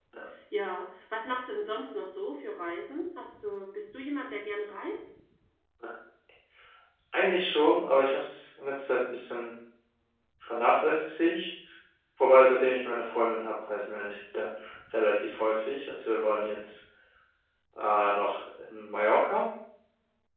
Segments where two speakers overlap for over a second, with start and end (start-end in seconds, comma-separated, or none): none